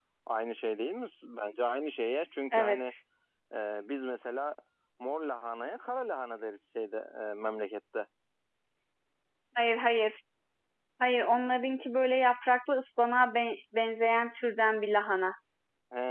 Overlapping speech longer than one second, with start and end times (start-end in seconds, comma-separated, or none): none